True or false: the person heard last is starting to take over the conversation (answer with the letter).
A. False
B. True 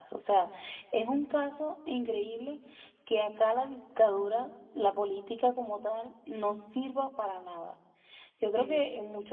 A